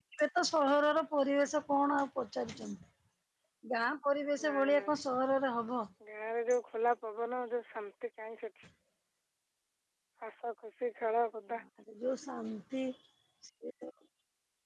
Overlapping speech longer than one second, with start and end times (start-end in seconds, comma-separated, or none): none